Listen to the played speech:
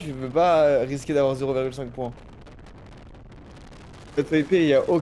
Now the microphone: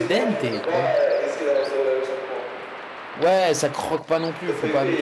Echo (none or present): present